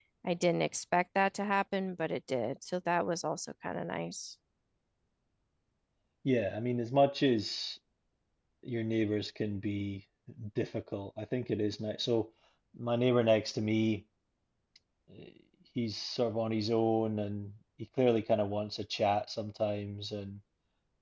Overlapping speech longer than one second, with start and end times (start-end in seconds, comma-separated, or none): none